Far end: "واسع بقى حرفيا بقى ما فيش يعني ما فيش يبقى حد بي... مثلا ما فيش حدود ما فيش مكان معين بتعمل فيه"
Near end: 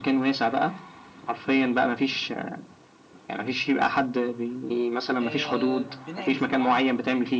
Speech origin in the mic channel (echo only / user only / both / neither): both